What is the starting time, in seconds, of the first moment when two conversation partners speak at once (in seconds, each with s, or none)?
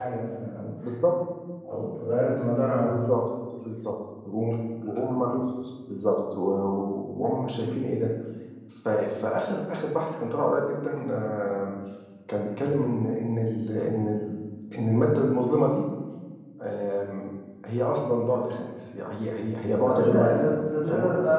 19.8 s